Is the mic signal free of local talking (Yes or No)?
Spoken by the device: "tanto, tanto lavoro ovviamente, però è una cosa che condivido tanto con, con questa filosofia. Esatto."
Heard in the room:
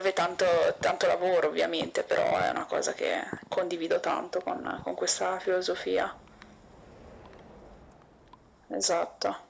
Yes